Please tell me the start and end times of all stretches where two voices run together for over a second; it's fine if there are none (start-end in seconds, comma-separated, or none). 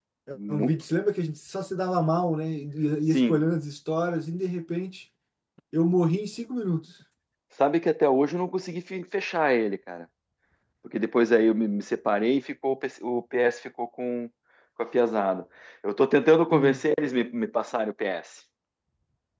none